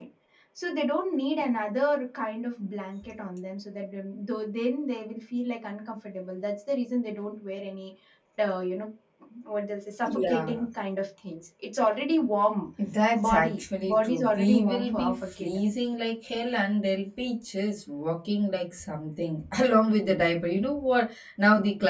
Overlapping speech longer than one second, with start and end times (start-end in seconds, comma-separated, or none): 13.2-15.6